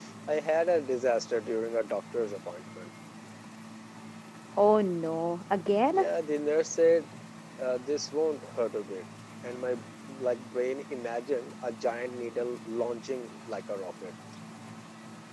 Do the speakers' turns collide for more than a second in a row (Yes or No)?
No